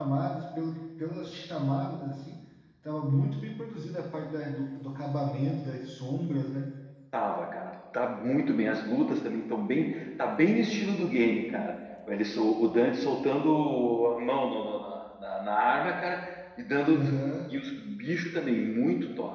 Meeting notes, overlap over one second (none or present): none